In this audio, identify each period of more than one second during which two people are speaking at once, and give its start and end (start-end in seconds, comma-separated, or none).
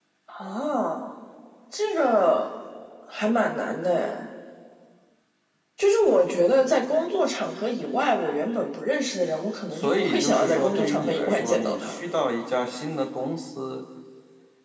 9.7-12.0